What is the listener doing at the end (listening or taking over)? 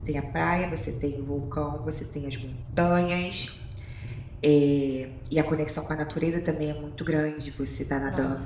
listening